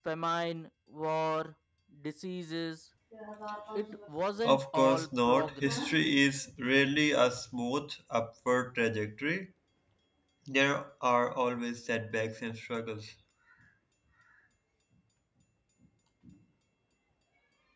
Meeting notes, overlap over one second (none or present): present